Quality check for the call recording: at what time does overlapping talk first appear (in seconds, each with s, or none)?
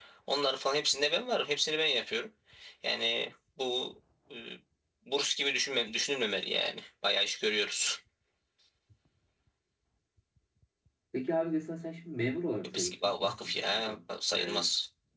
12.6 s